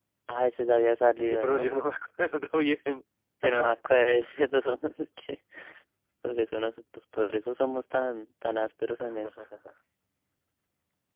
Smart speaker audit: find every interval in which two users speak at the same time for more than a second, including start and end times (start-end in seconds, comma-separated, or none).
none